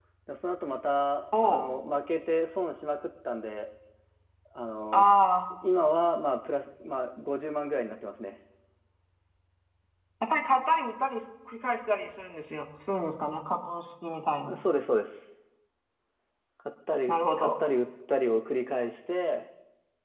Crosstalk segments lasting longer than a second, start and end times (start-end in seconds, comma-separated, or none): none